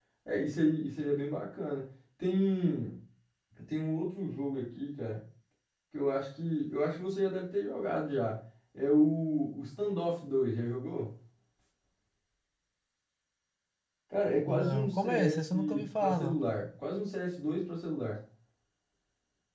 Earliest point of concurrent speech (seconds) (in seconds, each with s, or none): 14.5 s